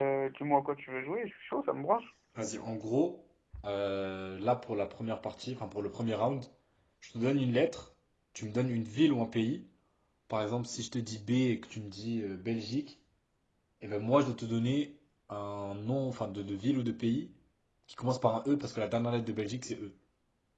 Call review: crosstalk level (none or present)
none